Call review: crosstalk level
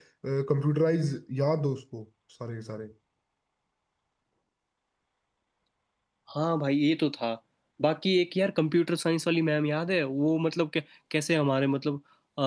none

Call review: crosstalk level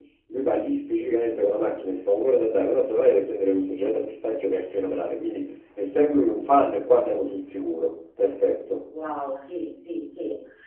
none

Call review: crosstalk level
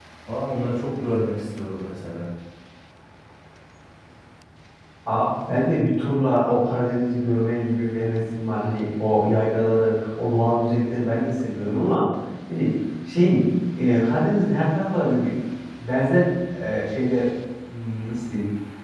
none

